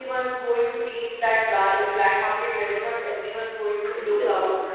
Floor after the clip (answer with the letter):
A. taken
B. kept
B